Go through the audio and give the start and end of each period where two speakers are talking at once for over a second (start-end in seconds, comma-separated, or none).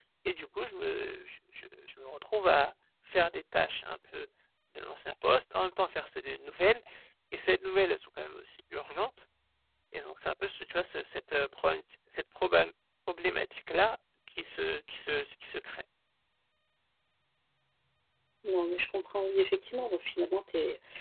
none